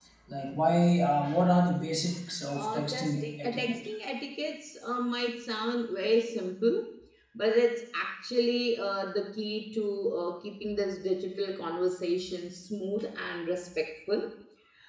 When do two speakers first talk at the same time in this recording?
2.5 s

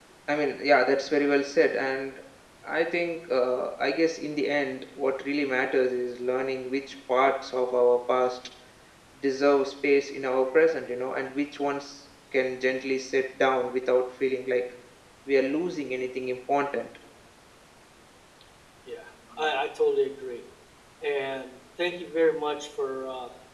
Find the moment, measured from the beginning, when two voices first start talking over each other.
none

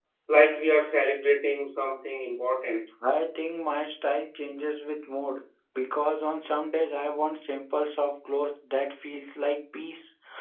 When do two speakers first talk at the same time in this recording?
none

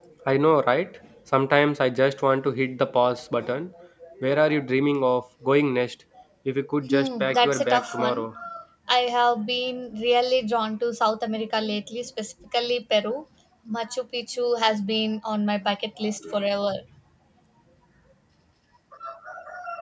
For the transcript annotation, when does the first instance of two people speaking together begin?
6.9 s

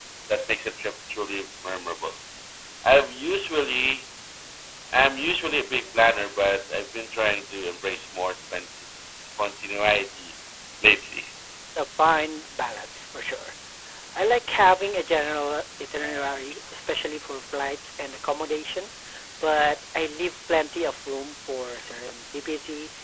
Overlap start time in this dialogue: none

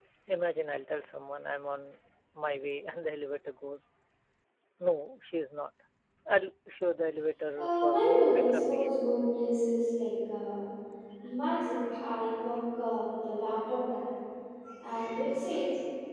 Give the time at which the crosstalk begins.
7.6 s

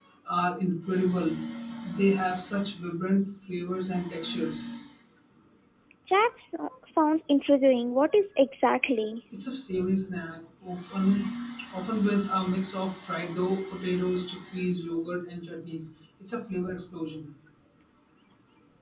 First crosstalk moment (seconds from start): none

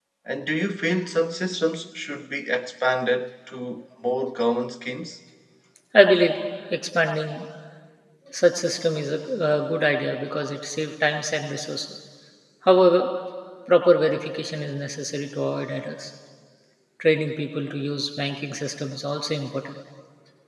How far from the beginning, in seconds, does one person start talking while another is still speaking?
none

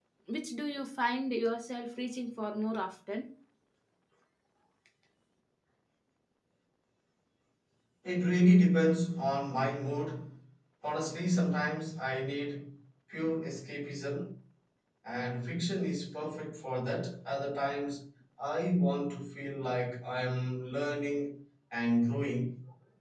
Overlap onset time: none

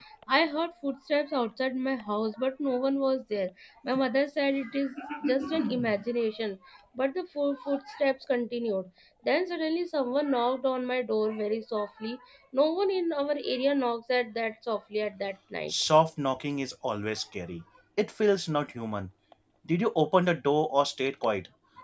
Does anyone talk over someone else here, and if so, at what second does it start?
none

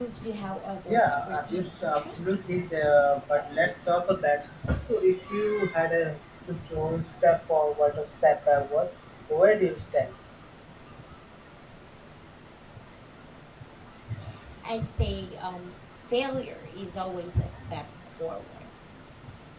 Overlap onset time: 0.9 s

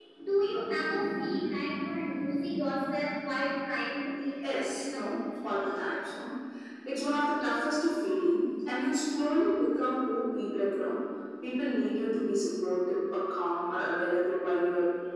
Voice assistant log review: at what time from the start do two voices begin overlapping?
4.4 s

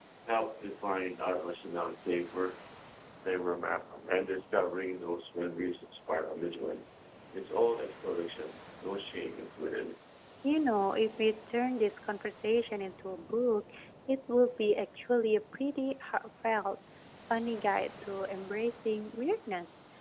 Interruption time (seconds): none

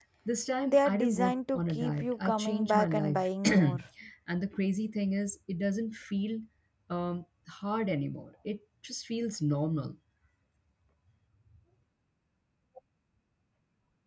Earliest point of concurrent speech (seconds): 0.7 s

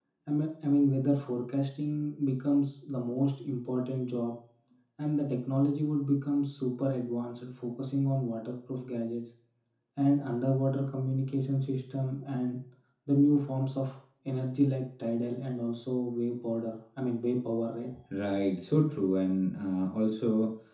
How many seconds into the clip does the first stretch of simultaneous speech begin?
none

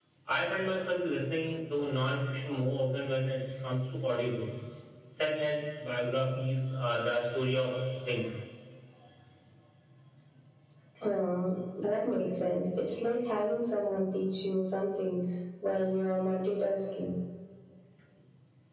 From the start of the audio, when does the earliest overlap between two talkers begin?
none

